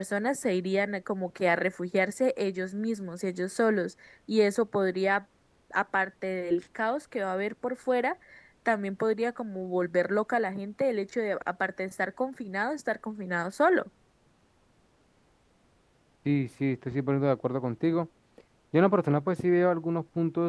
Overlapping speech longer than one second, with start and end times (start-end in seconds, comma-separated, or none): none